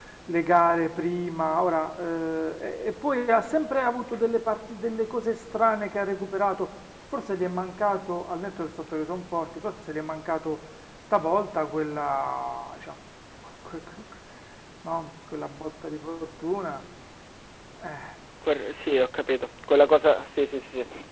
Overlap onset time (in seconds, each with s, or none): none